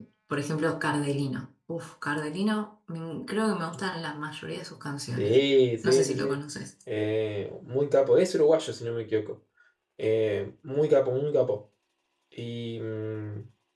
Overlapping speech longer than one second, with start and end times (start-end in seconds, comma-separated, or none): none